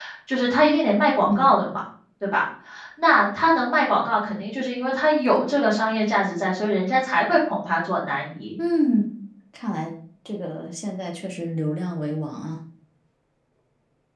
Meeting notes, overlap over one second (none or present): none